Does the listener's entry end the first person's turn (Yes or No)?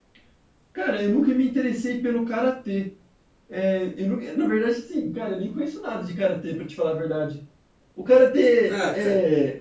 No